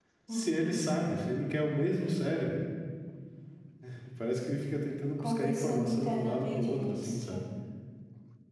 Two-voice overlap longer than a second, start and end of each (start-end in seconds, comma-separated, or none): 5.2-7.4